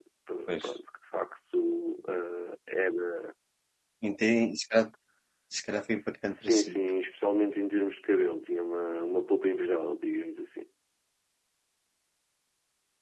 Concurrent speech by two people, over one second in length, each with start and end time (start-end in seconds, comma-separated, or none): none